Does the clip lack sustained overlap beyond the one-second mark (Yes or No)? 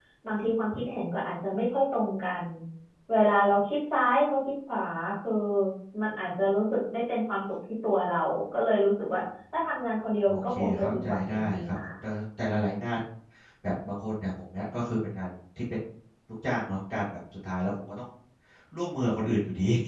No